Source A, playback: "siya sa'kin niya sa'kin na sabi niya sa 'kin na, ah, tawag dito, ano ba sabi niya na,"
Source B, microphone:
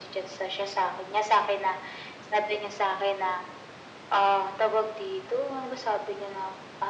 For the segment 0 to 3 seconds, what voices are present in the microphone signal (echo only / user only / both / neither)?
echo only